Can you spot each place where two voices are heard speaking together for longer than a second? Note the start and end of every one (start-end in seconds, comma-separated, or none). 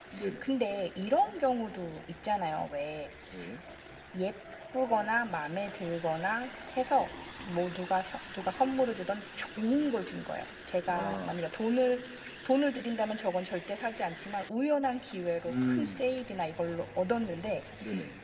none